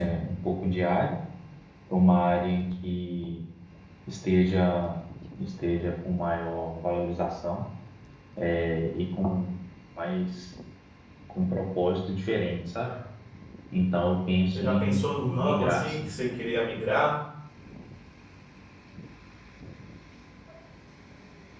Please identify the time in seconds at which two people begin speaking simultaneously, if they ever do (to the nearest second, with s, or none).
15 s